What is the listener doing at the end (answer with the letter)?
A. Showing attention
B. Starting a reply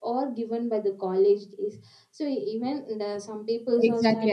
B